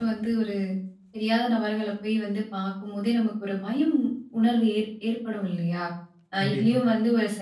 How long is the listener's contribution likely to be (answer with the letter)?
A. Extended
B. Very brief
B